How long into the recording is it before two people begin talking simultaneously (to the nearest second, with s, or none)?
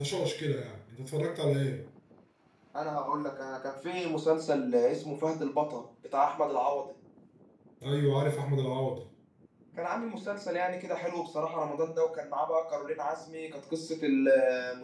none